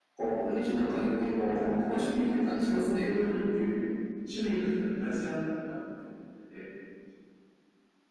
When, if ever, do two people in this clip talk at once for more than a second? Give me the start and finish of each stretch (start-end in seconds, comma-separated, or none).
1.5-3.1